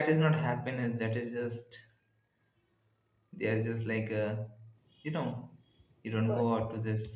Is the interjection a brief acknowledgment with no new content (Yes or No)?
Yes